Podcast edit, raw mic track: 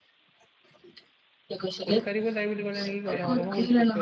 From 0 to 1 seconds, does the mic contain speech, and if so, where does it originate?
neither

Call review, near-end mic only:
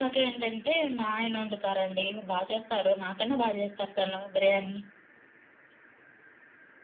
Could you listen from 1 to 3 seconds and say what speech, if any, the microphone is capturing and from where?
echo only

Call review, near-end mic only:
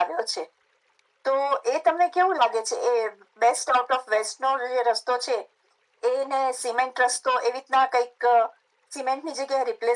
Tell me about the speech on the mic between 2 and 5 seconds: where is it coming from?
echo only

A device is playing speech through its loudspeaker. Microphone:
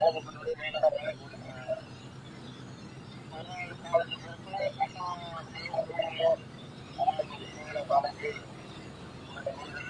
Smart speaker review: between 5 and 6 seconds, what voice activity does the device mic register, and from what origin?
echo only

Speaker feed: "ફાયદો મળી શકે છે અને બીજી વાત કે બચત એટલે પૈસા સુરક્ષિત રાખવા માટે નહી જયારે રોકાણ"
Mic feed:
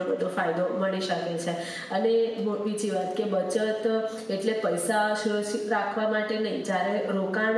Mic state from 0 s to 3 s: echo only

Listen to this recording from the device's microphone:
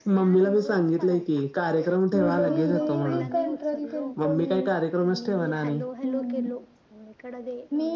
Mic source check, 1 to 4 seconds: both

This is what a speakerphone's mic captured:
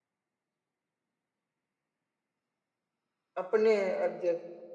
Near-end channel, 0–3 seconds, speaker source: neither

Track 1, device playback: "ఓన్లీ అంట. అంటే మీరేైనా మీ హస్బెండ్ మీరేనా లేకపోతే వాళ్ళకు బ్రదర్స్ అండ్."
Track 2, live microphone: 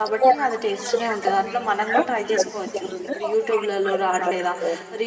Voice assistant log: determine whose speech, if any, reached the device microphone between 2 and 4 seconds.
both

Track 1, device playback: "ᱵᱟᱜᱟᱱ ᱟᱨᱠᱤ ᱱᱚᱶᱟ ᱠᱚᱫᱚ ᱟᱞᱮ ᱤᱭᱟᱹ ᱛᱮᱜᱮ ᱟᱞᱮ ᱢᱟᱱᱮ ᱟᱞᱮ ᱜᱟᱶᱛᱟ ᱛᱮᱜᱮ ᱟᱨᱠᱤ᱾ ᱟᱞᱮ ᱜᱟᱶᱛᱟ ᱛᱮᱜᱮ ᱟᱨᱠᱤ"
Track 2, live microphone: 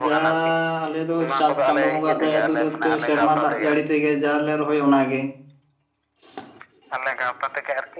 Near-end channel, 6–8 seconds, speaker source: echo only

